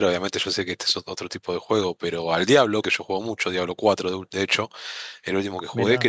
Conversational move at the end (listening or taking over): listening